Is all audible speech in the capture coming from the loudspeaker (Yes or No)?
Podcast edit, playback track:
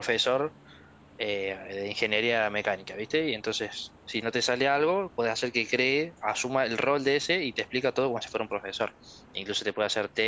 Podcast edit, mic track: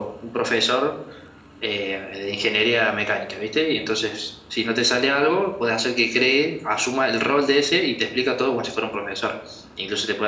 Yes